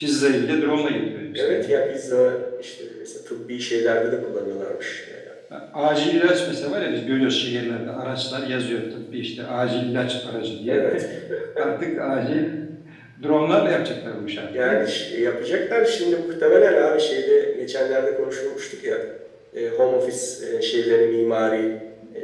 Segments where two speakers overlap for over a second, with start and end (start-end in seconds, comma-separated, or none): none